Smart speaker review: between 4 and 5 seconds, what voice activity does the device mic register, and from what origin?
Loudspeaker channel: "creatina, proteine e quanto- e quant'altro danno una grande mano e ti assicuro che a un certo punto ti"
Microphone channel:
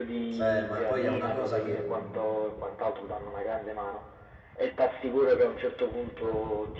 echo only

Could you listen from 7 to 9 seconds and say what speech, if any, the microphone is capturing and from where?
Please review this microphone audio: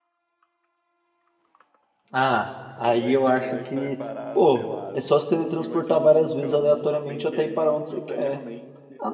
both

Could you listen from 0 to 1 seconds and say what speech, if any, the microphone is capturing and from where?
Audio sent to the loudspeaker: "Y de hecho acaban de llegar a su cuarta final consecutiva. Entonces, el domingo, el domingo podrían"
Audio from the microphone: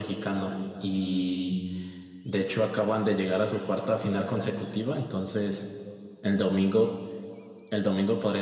echo only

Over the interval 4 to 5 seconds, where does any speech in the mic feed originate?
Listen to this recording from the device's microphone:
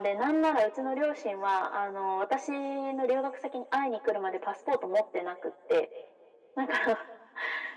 echo only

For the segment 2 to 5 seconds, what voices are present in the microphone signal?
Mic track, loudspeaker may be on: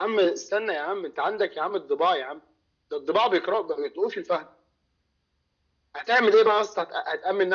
echo only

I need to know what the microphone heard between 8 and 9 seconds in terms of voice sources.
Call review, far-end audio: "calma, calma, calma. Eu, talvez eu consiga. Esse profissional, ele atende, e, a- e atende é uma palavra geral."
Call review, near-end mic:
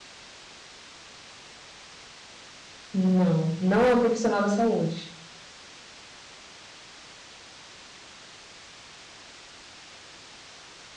neither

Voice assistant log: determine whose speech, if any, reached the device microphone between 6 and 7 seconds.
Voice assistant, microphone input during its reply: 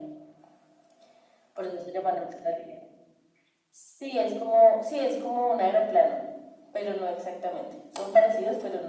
echo only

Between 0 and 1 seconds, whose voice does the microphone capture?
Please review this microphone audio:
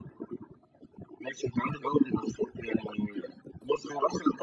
neither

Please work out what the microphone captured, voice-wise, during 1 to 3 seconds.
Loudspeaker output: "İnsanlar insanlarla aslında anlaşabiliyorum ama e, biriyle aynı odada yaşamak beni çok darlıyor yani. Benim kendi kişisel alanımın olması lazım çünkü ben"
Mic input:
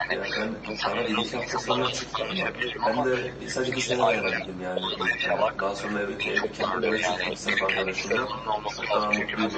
both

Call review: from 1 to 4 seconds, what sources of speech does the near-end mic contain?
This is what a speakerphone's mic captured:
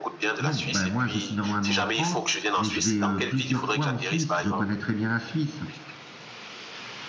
both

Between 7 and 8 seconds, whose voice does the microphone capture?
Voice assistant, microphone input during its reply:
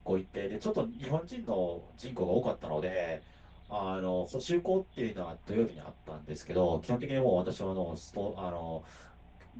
user only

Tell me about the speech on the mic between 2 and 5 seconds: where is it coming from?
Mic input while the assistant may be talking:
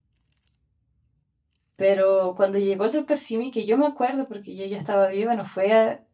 user only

